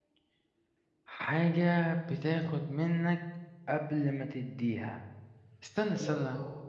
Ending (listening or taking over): taking over